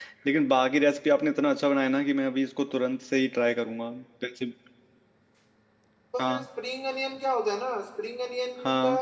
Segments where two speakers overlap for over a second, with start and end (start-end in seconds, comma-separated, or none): none